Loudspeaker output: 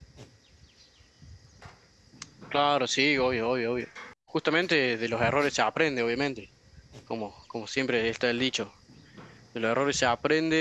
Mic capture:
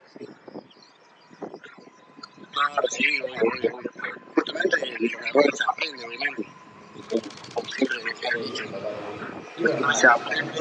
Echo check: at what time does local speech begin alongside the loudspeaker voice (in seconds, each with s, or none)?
8.2 s